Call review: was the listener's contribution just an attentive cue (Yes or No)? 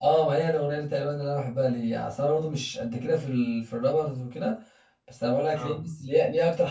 Yes